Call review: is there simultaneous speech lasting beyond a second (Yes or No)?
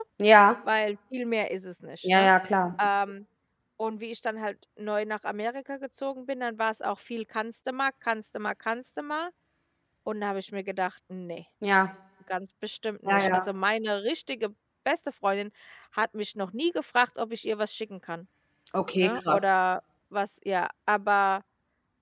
No